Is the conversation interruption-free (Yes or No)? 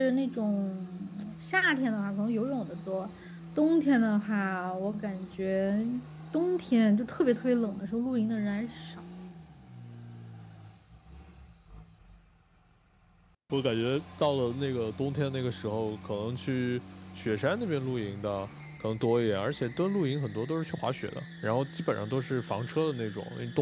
Yes